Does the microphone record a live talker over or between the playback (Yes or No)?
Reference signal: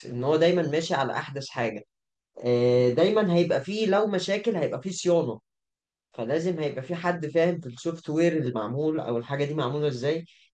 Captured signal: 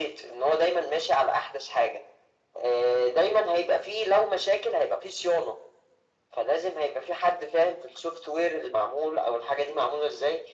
No